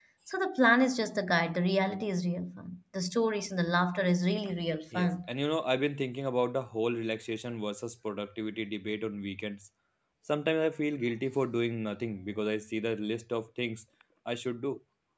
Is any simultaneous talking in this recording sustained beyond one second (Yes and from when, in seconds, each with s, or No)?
No